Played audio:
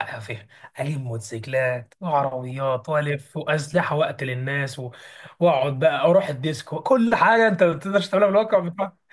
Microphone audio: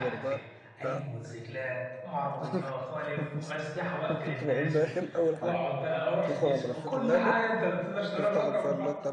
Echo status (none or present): present